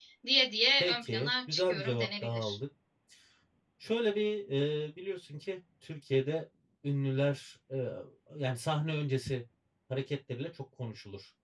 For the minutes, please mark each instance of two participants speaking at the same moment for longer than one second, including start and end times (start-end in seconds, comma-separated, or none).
0.8-2.6